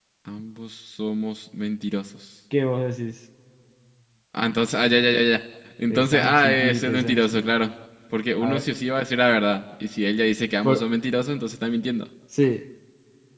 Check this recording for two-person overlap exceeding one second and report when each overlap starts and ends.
5.9-7.4

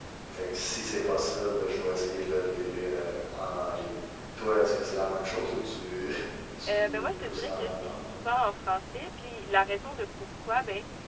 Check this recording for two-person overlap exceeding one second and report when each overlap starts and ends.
6.7-8.0

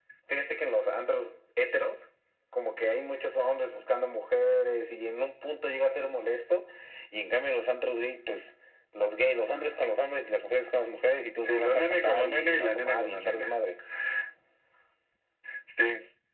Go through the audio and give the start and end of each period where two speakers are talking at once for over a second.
11.5-13.5

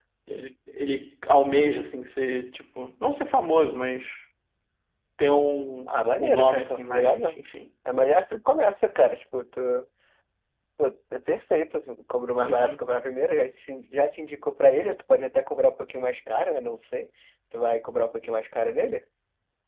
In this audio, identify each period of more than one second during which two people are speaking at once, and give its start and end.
5.9-7.4

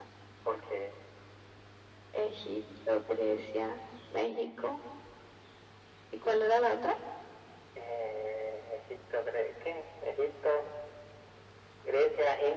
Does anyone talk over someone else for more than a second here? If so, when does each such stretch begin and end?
none

